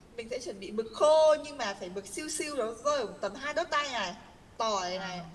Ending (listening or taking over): listening